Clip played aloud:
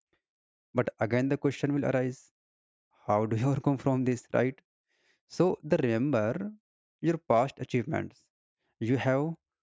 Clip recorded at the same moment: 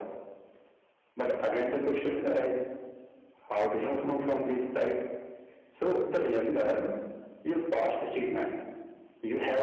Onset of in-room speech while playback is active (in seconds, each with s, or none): none